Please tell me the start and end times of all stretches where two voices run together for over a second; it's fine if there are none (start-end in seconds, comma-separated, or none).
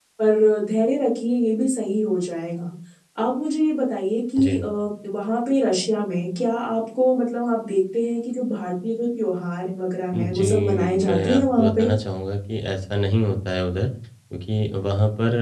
10.1-11.9